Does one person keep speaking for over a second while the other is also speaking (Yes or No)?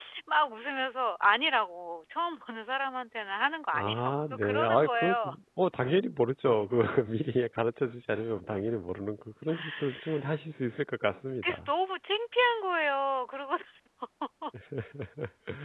Yes